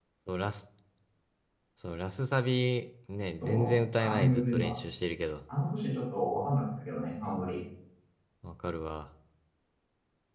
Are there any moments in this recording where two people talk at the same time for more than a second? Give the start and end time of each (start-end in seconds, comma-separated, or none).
3.4-4.8